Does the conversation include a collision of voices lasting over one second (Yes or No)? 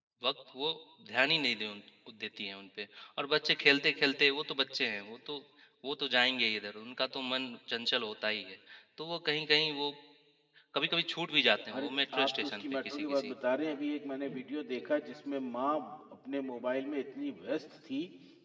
Yes